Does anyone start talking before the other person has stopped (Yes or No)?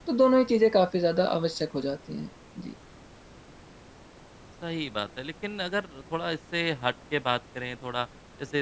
No